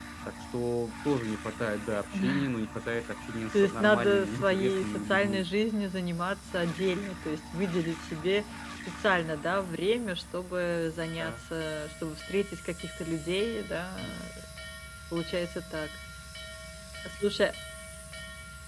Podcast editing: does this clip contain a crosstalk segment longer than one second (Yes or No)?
Yes